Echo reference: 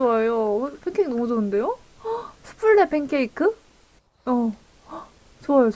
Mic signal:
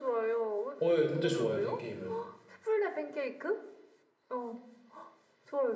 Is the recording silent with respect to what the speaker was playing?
No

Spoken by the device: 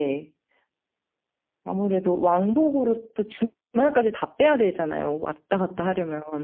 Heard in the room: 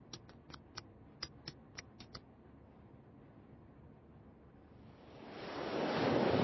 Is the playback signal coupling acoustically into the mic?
No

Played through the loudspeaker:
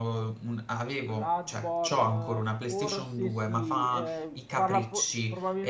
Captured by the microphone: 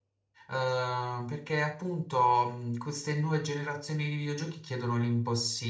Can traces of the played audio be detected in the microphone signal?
No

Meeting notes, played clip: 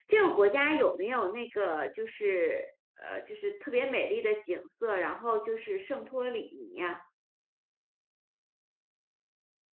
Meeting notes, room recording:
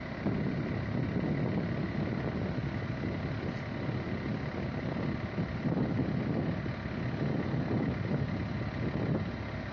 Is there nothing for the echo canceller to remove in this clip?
Yes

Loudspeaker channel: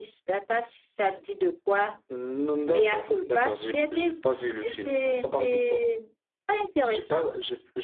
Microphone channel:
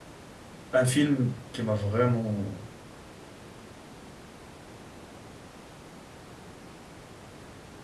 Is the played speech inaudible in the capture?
Yes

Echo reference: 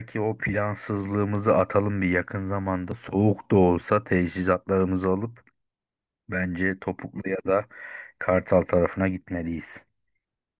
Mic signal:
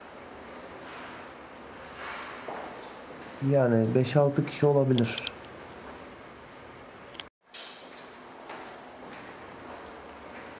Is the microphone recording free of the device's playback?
Yes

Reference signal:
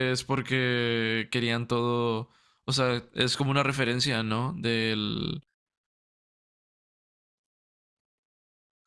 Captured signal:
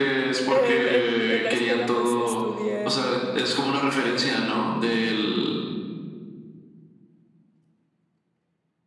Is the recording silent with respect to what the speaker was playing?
No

